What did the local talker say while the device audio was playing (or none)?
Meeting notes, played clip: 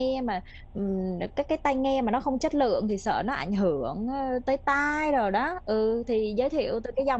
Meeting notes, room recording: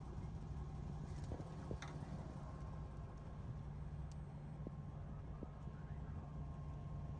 none